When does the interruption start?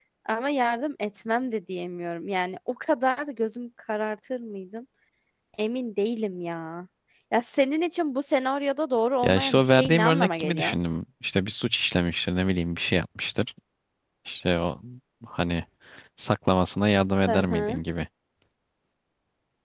9.2 s

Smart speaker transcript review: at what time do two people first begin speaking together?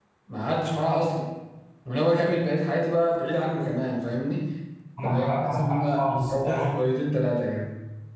5.0 s

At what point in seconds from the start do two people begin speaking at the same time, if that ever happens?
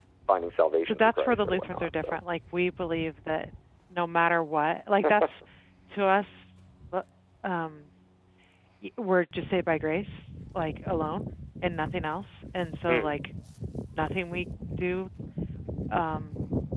0.8 s

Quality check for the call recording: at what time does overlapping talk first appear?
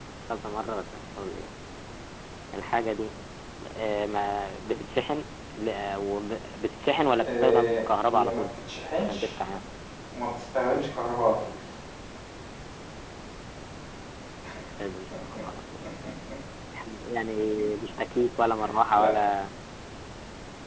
7.2 s

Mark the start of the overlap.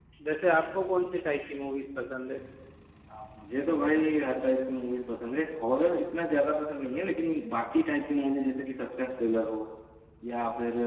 none

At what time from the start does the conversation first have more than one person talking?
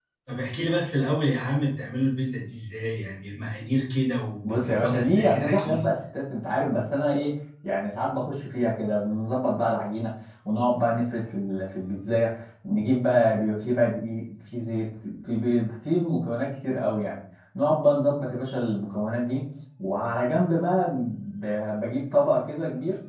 4.4 s

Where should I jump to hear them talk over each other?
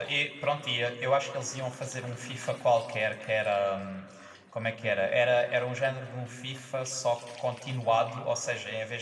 none

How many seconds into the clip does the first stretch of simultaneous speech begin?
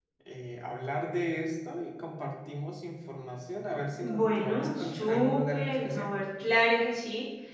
4.0 s

